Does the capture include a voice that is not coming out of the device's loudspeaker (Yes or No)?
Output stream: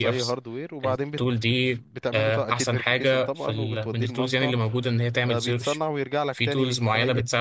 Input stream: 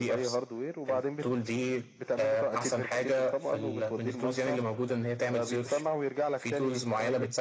No